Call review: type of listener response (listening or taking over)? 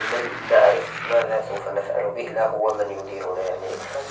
listening